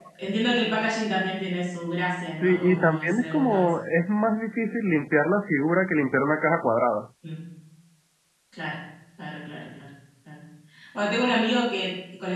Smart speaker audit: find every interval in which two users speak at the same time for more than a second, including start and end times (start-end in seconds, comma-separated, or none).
2.3-3.7